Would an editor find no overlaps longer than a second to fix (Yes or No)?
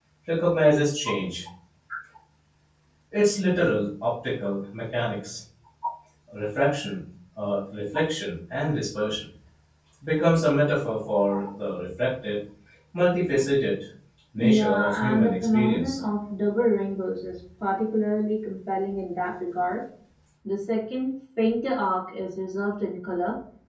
No